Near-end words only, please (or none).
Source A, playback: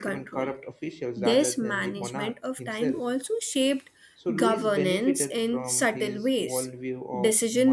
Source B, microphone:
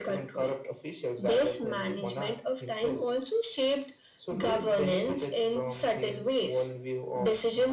none